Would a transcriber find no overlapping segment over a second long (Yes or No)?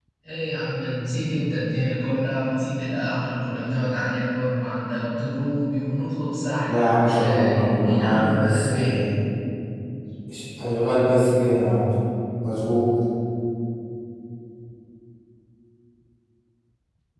No